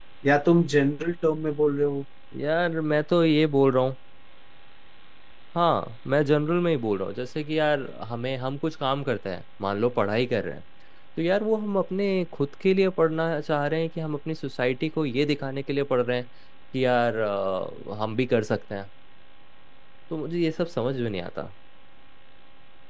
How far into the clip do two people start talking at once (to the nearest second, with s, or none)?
none